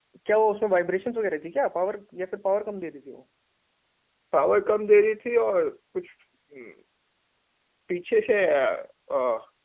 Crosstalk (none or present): none